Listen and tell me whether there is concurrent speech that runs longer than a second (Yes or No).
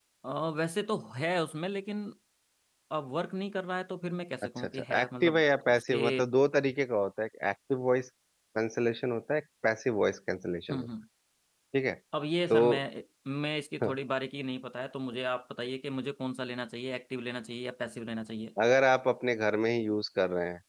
Yes